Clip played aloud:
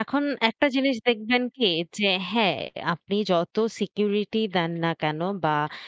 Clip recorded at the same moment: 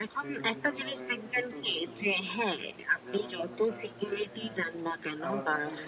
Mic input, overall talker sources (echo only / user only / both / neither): both